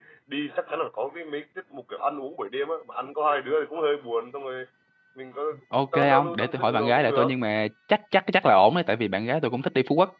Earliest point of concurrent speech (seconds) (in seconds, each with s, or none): 5.9 s